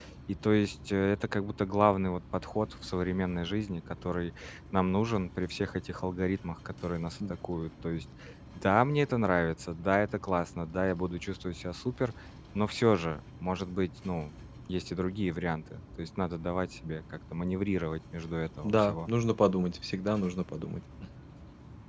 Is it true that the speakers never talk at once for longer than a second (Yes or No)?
Yes